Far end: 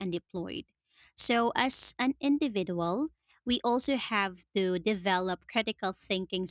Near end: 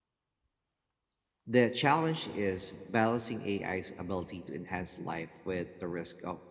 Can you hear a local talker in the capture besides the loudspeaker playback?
Yes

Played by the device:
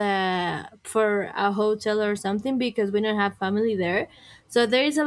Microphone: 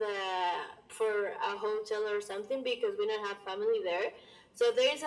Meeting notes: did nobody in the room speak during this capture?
Yes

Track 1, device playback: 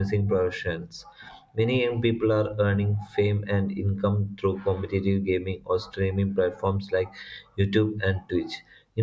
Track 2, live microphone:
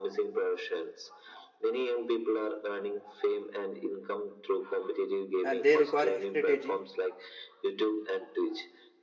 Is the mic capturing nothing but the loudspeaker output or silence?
No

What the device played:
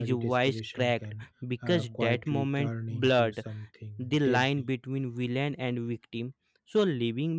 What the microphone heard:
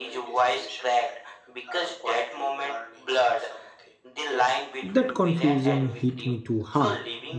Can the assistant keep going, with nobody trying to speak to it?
No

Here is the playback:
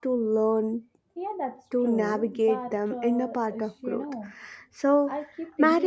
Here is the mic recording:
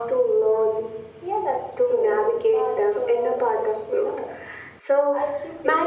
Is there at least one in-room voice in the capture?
No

